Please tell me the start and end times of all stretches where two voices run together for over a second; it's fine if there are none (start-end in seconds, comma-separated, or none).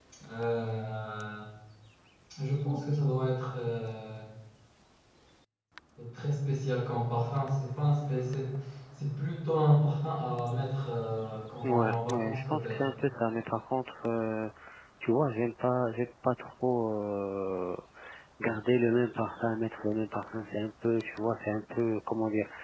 11.6-12.9